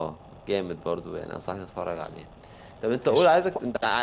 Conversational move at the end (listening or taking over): listening